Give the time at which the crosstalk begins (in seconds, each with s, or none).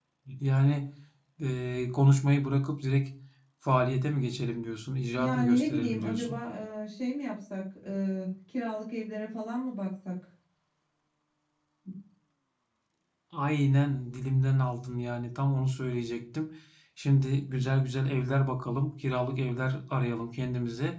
5.2 s